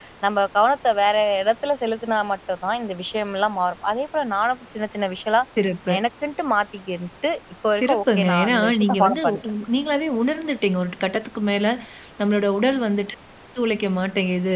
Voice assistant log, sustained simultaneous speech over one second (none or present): present